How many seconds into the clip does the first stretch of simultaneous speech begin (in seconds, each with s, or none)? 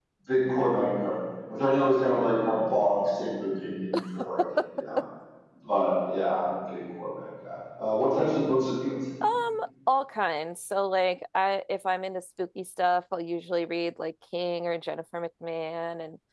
none